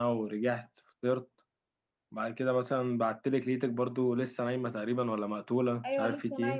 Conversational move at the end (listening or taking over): taking over